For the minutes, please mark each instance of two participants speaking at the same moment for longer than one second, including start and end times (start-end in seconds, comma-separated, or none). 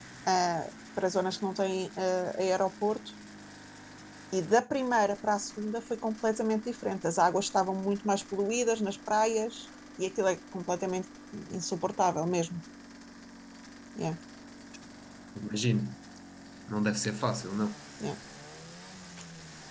none